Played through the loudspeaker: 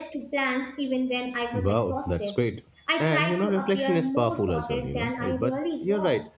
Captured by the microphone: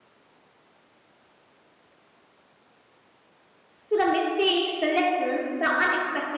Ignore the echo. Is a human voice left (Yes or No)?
Yes